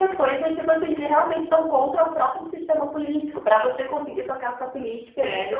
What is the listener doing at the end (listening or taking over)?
taking over